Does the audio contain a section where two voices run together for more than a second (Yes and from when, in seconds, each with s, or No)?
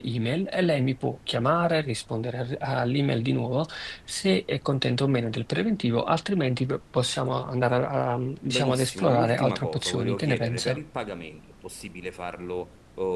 Yes, from 8.5 s